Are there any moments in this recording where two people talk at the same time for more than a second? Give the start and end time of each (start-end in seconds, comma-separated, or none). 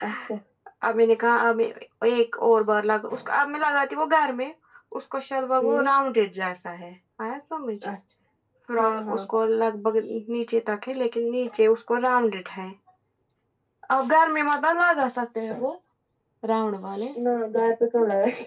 none